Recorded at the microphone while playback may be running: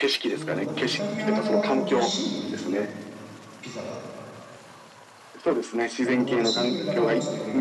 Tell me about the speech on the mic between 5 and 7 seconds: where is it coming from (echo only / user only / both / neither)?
both